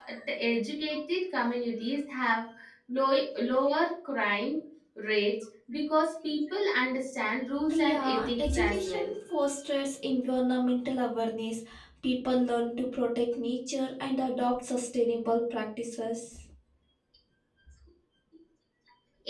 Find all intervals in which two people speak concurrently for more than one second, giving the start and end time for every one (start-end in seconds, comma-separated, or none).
7.8-9.1